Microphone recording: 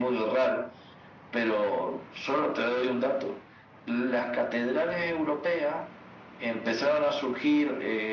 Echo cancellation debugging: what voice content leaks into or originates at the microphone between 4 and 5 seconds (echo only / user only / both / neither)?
echo only